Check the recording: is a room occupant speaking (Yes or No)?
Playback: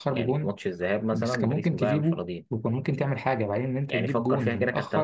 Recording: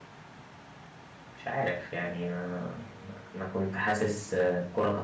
Yes